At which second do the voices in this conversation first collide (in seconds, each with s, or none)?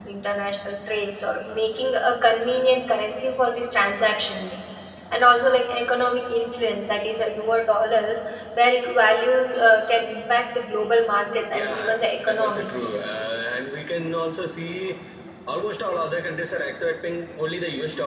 11.5 s